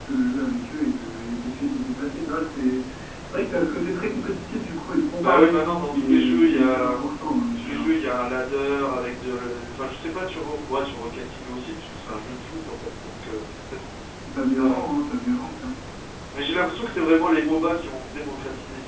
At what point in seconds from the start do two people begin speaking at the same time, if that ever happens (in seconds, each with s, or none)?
5.2 s